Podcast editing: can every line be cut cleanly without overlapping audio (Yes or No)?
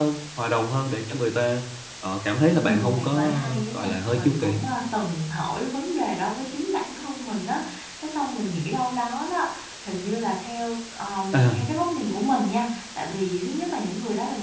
No